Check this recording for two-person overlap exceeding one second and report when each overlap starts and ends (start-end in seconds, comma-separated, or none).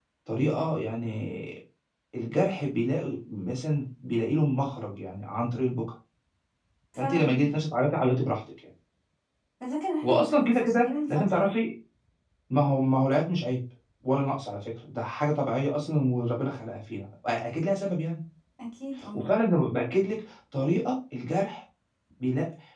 10.0-11.5